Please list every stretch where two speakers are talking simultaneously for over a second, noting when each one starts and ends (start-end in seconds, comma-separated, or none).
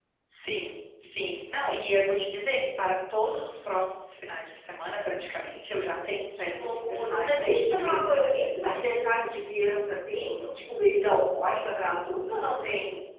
6.4-8.3